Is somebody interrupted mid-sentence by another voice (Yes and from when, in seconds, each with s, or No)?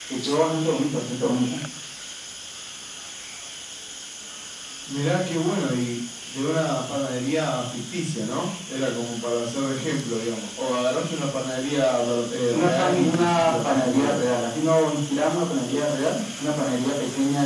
Yes, from 12.5 s